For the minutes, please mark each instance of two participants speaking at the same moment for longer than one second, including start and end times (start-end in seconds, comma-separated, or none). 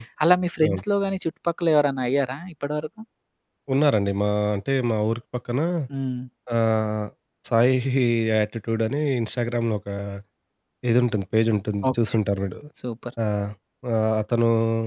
none